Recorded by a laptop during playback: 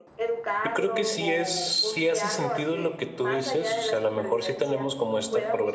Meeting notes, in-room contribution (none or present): present